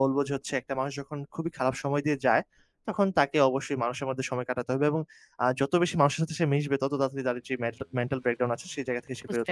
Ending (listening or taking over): taking over